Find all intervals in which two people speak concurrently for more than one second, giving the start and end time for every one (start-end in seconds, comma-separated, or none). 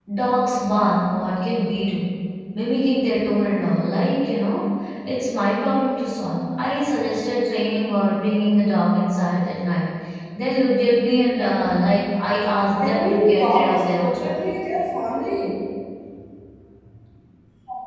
12.8-14.4